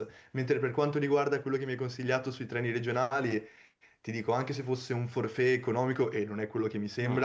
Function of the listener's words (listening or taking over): listening